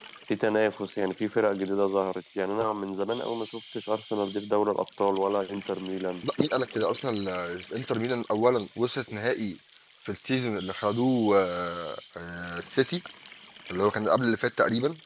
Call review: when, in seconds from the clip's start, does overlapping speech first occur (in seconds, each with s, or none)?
none